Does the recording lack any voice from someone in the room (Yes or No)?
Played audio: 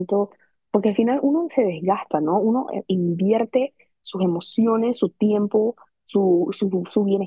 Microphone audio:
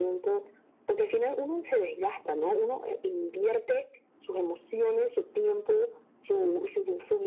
Yes